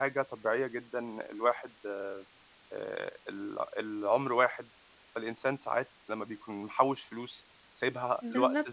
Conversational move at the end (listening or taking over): taking over